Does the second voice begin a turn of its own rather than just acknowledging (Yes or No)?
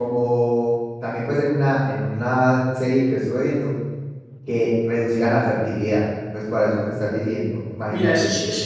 Yes